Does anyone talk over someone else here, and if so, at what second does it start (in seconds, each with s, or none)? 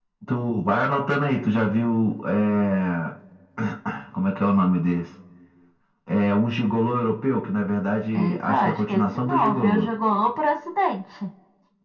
8.1 s